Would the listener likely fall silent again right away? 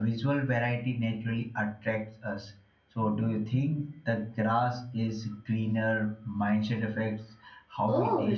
No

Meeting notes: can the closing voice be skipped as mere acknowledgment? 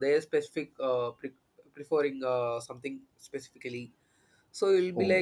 Yes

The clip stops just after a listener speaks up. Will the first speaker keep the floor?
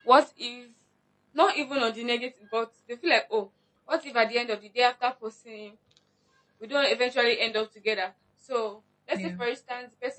Yes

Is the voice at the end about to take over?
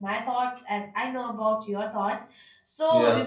No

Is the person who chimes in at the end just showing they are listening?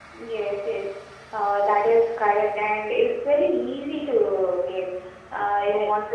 Yes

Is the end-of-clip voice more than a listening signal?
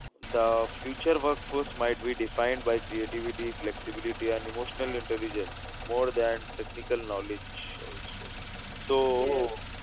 No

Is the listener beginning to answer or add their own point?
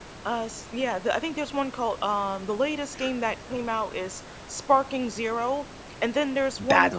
No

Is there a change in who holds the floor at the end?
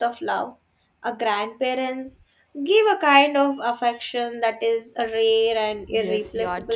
Yes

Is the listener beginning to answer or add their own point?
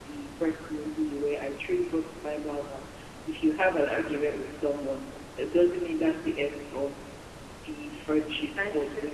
No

